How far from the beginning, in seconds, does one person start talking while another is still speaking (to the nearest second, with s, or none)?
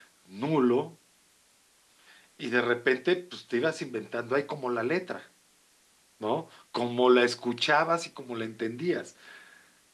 none